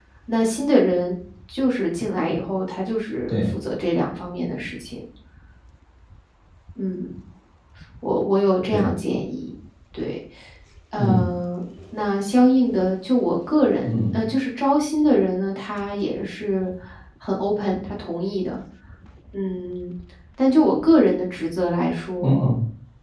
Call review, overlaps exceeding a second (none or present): none